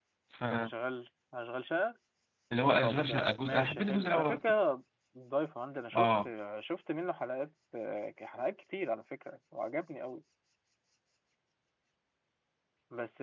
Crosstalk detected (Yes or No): Yes